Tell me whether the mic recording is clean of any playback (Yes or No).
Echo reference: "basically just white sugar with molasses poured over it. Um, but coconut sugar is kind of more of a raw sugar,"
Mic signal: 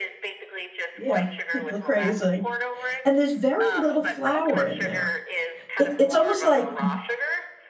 No